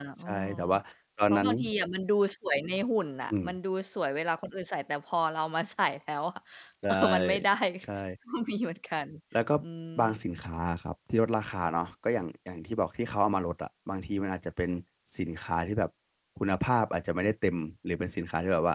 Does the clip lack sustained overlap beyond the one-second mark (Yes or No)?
Yes